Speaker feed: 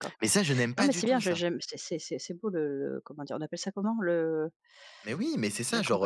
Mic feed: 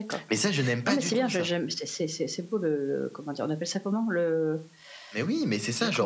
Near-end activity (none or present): none